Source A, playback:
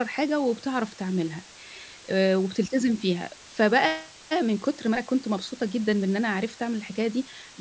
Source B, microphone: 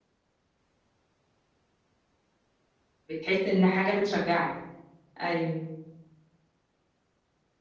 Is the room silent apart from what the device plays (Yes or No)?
No